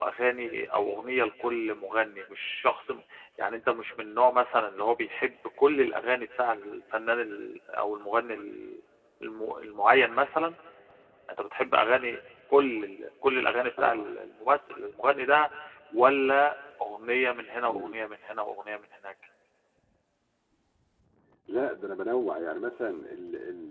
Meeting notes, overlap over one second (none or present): none